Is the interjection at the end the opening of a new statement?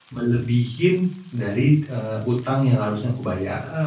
Yes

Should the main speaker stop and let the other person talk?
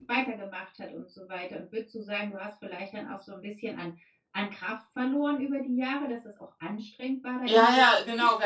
Yes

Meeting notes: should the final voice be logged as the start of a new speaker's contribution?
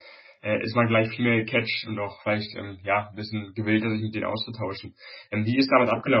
No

